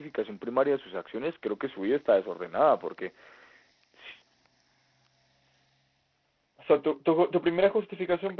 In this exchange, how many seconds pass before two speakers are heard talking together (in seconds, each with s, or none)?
none